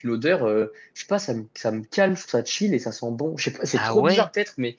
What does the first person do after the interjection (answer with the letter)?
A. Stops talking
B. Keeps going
B